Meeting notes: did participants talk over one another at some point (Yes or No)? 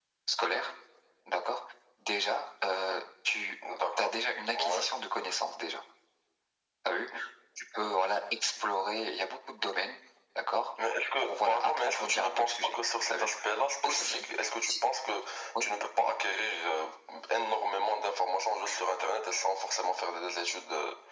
Yes